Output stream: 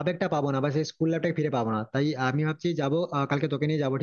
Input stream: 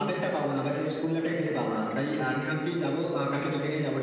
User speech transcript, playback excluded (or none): none